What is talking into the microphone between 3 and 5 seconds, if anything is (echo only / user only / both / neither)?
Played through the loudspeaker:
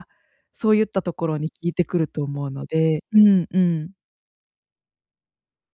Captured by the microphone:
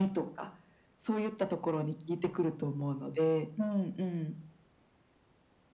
echo only